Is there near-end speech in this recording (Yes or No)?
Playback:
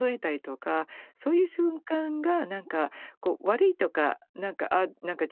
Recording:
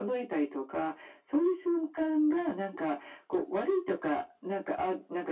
No